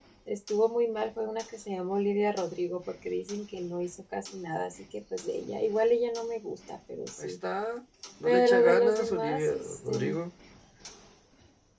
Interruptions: present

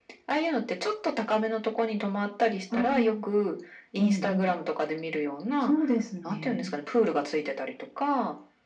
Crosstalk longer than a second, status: none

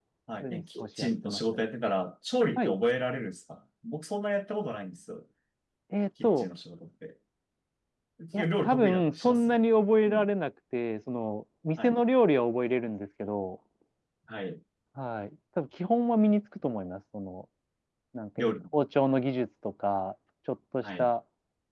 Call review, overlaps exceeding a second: present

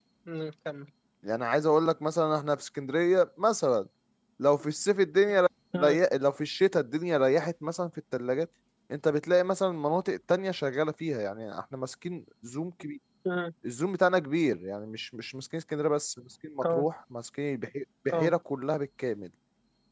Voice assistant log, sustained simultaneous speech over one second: none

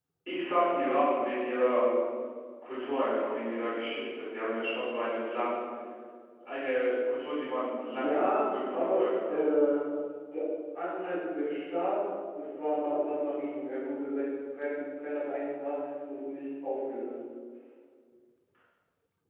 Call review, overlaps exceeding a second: present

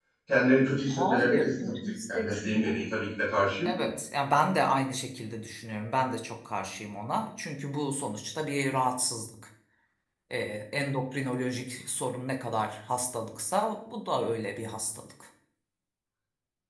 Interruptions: present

